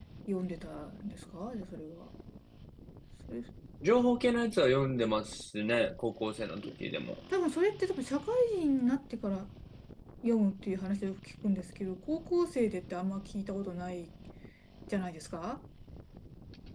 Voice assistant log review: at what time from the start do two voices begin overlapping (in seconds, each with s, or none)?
none